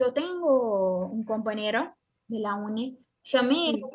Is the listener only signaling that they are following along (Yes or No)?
Yes